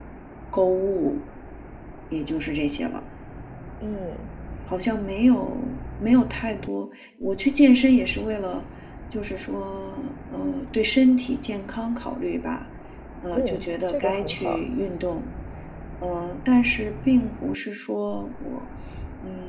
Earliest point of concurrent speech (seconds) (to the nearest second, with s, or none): 13 s